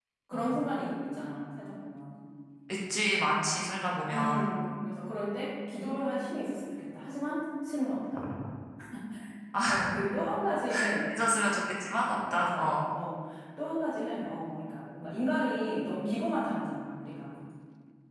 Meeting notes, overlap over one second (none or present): none